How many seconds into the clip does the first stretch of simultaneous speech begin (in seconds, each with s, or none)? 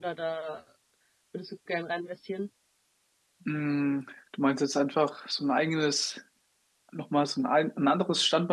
none